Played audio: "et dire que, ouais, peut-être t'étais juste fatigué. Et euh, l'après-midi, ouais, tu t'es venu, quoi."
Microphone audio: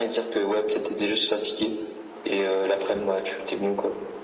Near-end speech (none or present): none